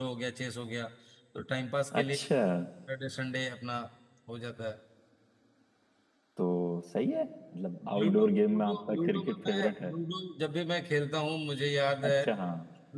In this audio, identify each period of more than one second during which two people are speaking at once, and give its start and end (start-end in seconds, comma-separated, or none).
8.0-9.9